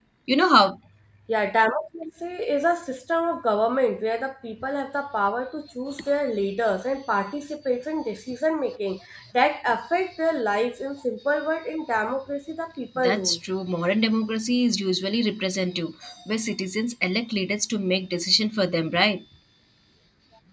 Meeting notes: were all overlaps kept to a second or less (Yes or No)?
Yes